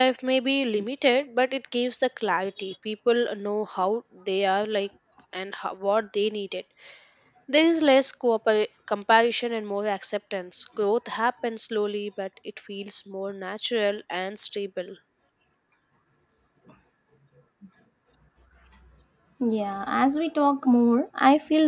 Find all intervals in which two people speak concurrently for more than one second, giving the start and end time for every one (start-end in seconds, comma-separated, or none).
none